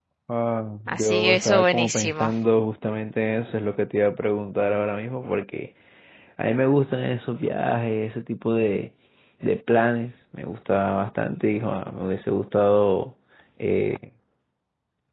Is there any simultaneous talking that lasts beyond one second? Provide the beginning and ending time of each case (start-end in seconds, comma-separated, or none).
0.9-2.3